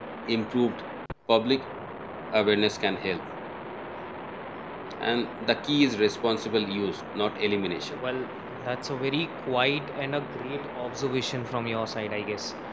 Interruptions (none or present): none